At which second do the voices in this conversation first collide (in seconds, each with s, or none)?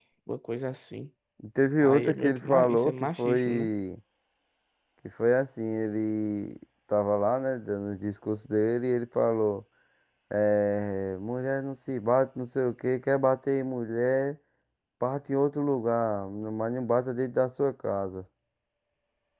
1.8 s